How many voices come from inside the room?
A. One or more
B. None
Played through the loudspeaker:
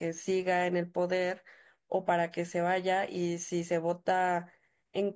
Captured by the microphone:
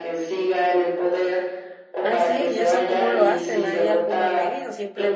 A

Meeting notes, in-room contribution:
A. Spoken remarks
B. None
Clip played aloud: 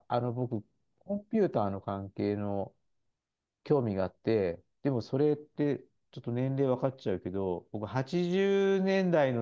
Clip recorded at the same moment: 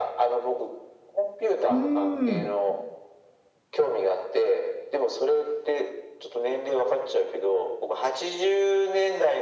A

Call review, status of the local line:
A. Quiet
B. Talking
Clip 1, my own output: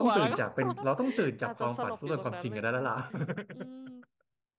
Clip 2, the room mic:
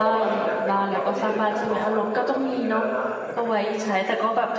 B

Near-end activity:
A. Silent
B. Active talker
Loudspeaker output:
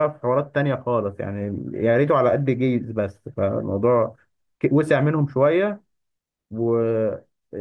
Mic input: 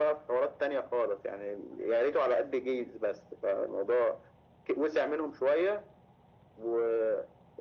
A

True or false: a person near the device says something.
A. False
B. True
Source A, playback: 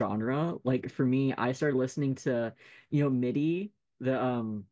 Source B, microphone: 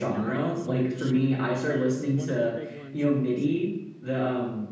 B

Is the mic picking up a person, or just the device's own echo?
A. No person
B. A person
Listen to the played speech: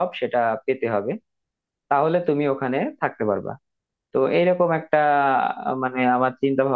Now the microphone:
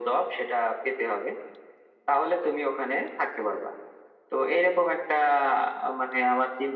A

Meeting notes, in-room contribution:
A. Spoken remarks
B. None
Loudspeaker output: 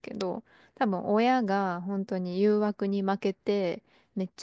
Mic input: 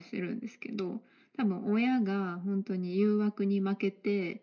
B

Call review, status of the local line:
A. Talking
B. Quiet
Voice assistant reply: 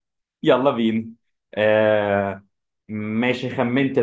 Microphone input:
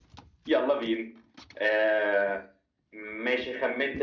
B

